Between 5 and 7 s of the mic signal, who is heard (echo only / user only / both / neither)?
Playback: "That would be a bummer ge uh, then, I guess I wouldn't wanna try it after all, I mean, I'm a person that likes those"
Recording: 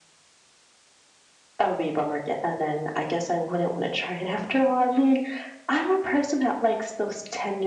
echo only